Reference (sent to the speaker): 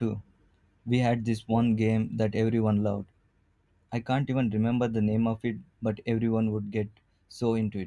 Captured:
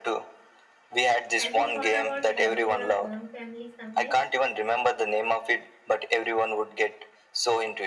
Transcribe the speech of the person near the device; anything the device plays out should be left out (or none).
Have you thought about having your own family someday?